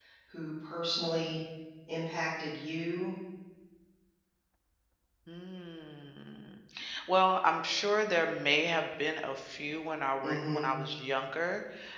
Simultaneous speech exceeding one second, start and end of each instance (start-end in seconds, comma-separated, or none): none